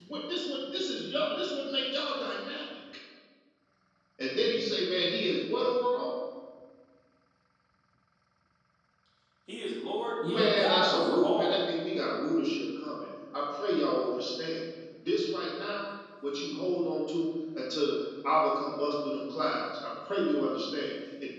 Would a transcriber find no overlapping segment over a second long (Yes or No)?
No